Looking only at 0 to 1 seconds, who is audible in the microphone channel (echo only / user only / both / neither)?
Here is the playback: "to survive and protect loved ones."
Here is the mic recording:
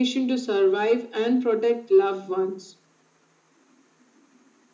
echo only